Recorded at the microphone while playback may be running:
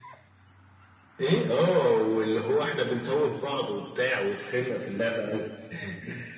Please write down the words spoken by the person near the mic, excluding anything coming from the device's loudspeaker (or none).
none